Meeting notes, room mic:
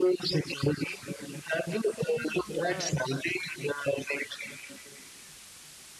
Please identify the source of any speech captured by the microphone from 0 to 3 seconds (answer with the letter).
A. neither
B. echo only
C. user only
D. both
D